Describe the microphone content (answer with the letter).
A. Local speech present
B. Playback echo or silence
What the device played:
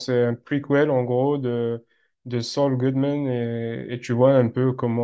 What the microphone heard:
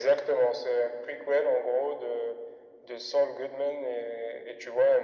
B